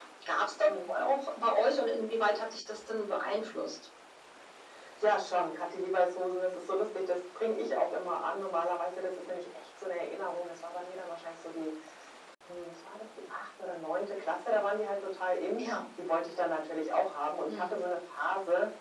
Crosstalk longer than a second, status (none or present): none